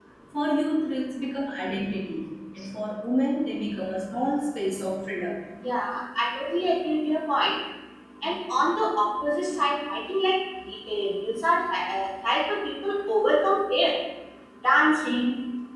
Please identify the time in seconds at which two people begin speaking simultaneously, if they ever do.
none

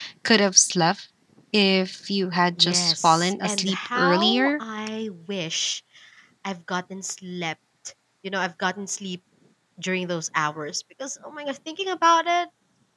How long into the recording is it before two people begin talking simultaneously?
3 s

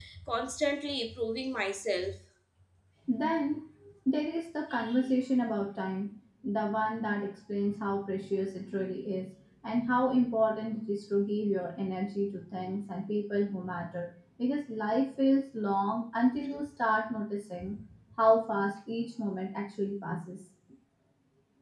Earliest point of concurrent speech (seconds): none

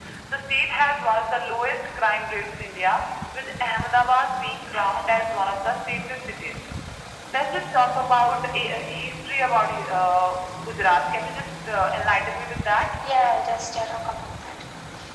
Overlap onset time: none

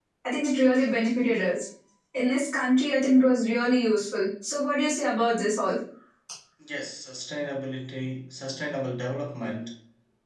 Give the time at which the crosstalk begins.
none

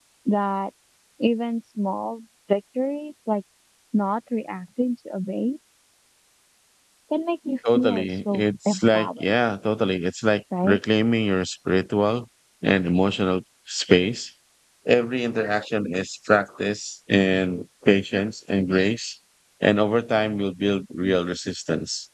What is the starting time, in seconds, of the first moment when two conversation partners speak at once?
8 s

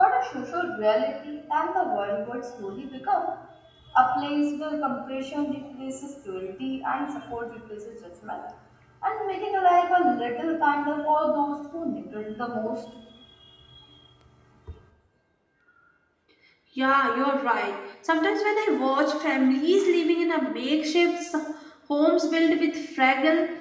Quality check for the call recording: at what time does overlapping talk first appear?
none

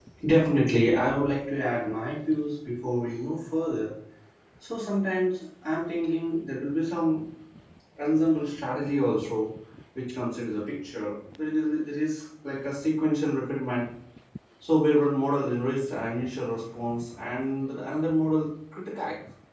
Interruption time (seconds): none

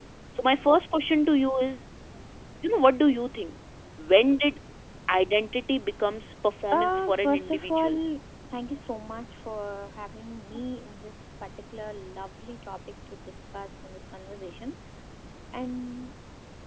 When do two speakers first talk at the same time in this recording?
7 s

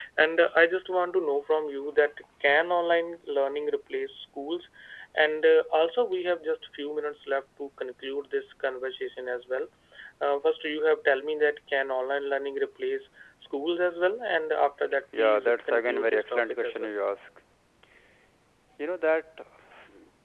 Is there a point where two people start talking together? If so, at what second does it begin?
15 s

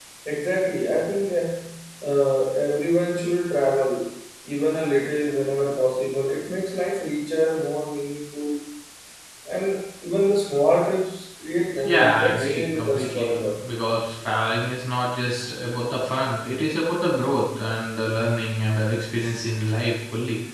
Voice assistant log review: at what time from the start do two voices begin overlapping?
12 s

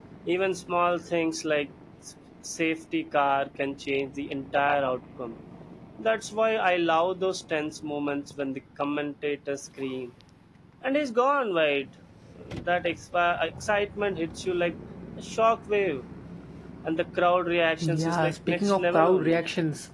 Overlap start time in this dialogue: 18 s

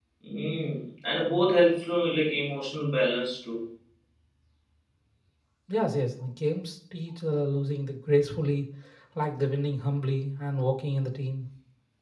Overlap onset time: none

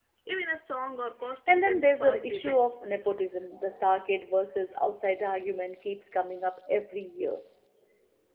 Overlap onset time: 1 s

